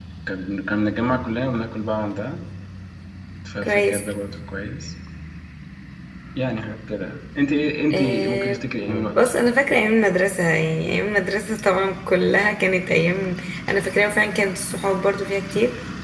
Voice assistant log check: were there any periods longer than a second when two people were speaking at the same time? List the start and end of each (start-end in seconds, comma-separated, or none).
7.9-9.5